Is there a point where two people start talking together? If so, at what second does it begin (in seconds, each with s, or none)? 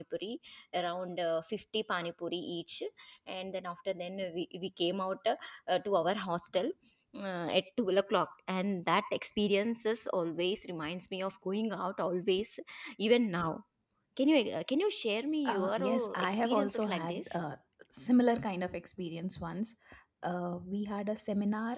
15.4 s